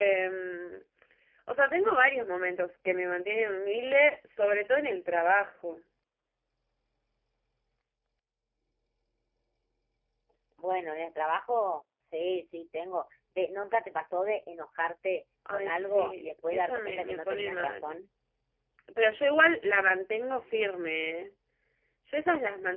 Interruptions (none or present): present